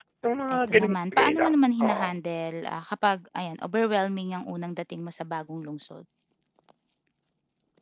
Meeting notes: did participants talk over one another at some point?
Yes, from 0.6 s

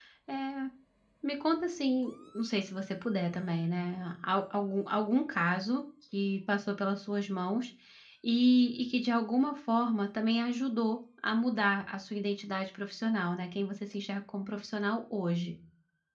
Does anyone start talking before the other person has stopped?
No

